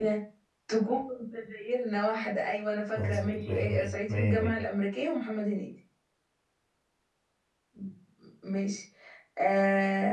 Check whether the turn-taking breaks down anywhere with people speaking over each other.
Yes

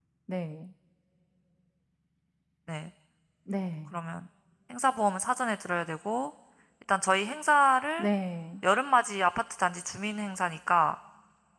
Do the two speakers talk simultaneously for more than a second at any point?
No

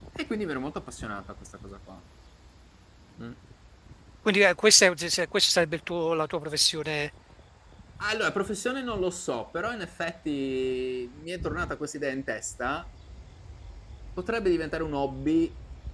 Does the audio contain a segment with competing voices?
No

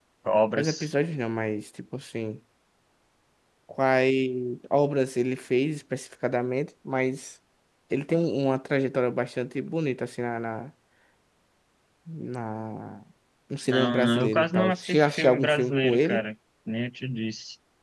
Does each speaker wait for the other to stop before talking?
No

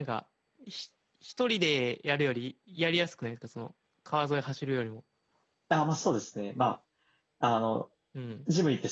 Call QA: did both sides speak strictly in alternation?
Yes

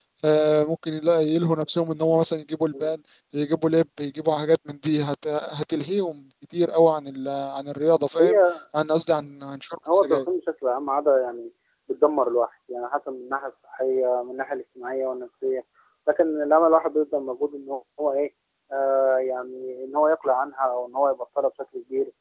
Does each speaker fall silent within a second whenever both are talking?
Yes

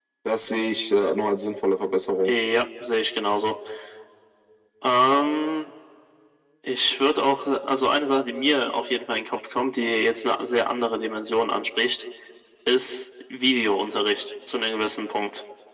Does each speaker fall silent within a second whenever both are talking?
Yes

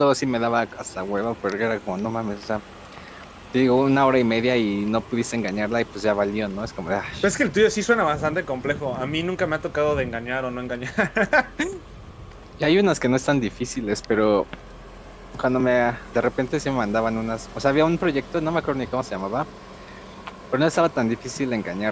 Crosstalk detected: No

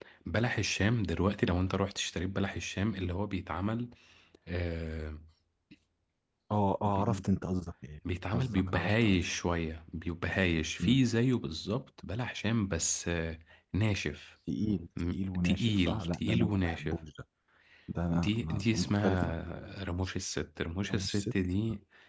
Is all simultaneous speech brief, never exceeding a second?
No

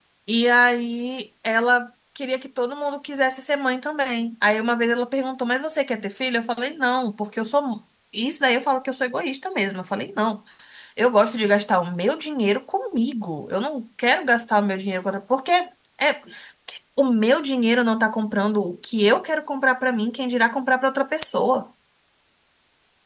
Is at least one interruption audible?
No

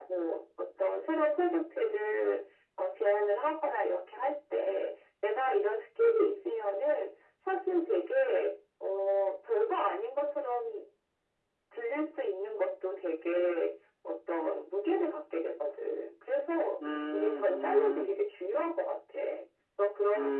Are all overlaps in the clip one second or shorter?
No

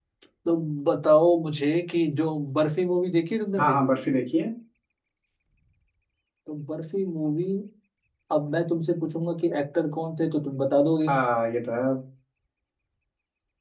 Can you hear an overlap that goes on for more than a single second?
No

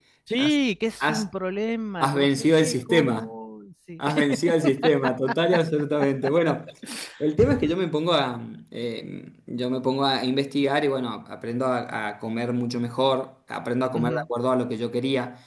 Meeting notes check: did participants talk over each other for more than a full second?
Yes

